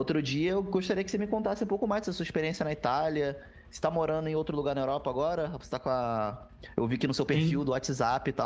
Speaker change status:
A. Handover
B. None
B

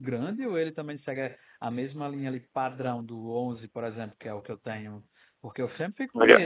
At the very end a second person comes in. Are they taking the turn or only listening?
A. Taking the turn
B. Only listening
B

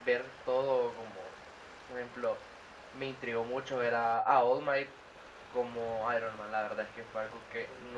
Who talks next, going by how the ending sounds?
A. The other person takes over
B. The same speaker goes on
B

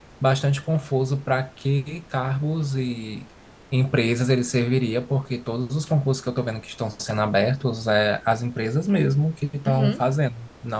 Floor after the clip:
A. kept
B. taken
A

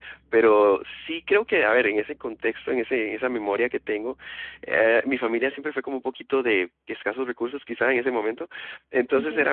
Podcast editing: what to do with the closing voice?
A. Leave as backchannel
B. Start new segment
A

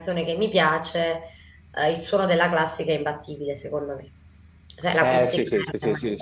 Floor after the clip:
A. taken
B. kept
A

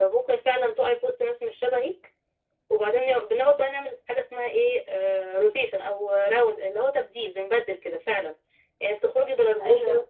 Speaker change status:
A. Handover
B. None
B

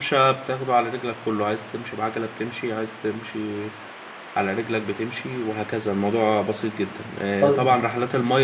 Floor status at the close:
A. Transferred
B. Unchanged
B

